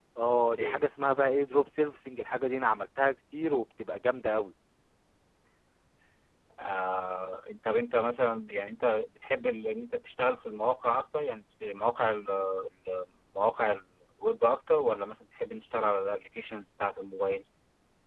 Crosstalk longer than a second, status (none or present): none